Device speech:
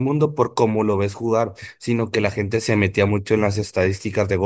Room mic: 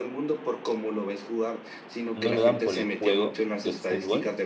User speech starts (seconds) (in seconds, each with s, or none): 2.1 s